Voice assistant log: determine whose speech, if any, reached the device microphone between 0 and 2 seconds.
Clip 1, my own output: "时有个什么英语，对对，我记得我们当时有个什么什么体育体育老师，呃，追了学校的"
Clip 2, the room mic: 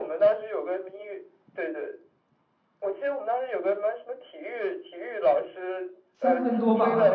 echo only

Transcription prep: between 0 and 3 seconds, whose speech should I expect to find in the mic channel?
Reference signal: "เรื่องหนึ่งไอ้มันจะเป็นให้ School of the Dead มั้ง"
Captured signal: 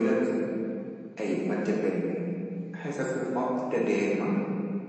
echo only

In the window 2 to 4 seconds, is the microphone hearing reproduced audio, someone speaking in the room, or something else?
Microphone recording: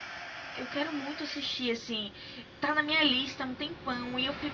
user only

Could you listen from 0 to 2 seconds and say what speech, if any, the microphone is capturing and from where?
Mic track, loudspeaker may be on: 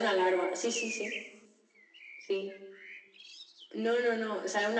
echo only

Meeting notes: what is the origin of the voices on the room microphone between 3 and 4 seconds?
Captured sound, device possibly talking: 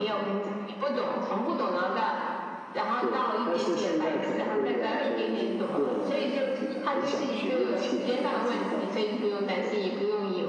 echo only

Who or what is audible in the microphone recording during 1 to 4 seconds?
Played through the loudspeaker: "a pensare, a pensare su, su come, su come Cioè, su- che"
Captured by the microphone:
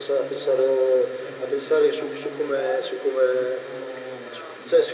both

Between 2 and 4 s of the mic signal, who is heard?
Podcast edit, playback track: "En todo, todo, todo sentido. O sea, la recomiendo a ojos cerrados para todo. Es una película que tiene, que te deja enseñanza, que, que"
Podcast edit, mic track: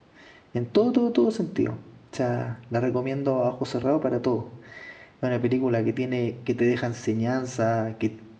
echo only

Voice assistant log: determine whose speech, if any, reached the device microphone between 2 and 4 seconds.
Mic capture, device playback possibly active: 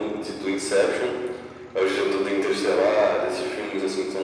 echo only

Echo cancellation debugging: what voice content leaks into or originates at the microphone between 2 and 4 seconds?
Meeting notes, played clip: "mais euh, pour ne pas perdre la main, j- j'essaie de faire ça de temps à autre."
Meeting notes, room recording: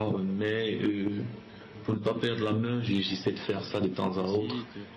both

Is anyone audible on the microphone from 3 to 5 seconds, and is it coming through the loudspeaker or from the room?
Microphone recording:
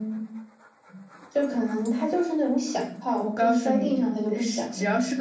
both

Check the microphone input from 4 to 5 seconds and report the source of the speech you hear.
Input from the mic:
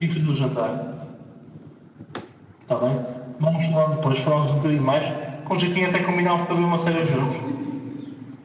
echo only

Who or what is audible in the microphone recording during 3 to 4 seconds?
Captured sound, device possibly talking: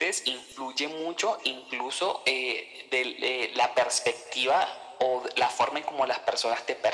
echo only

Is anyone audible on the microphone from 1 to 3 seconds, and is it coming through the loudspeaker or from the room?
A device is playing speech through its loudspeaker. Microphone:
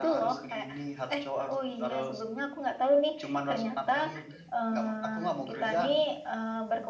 echo only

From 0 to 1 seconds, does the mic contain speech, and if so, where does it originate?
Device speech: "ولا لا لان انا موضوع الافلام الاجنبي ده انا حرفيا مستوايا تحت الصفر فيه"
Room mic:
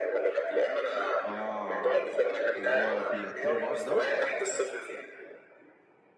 echo only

